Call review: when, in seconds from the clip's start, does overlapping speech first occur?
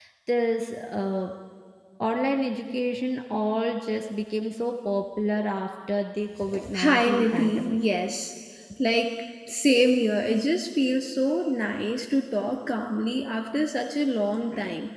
6 s

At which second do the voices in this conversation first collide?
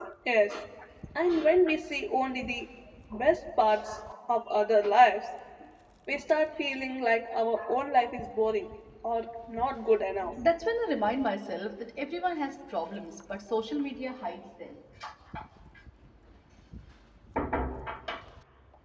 none

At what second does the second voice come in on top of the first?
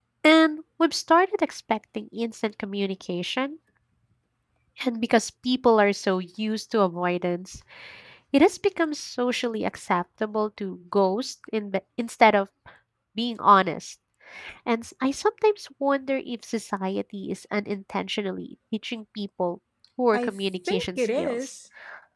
20 s

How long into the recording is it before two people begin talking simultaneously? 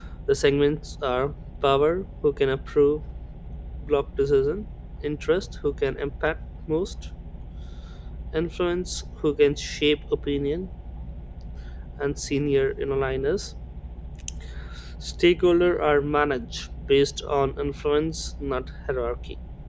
none

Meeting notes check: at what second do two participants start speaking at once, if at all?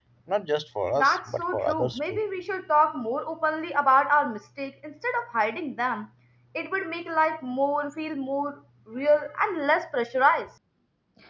1 s

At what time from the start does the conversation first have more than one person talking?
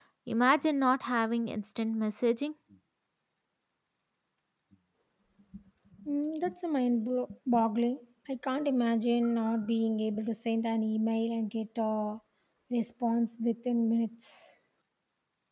none

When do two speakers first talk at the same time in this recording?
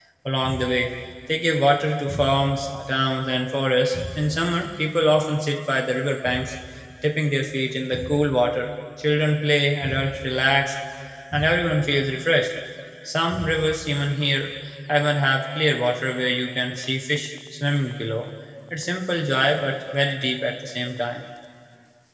none

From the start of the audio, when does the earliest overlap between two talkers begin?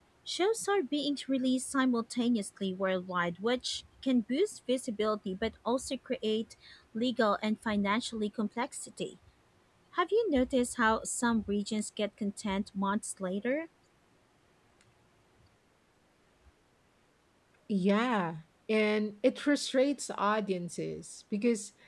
none

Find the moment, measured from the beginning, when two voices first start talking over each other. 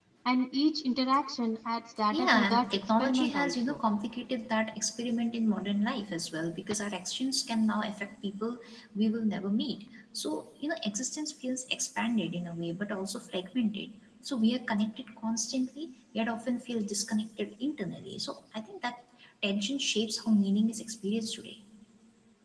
2 s

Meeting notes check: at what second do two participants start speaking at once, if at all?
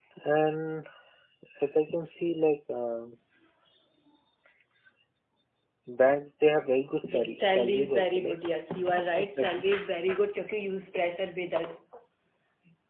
7 s

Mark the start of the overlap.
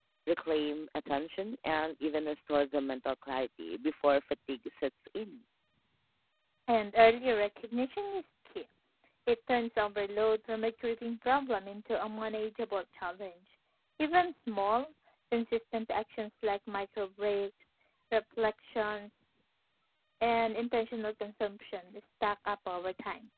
none

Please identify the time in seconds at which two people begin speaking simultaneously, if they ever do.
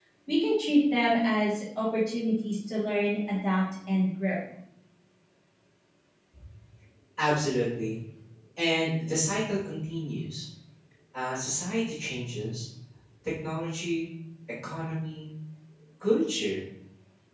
none

